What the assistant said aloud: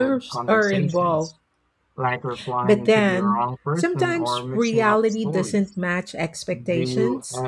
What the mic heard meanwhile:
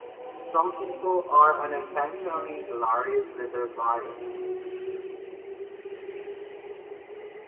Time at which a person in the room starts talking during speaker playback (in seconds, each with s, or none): 0.4 s